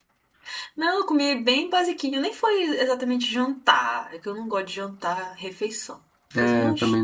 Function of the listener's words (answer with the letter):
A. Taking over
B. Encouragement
A